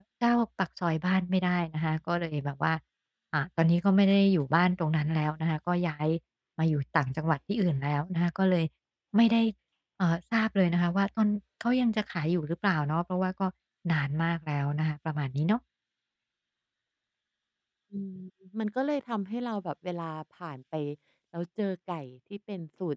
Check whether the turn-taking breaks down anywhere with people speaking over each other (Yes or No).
No